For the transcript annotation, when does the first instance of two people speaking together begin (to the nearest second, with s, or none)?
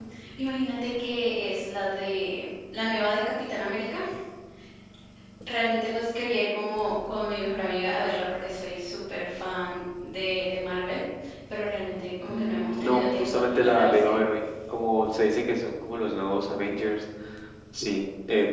12 s